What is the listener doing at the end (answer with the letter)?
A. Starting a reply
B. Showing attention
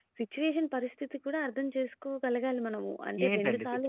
A